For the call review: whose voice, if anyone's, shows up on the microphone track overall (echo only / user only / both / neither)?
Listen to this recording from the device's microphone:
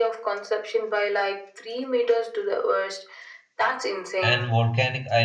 both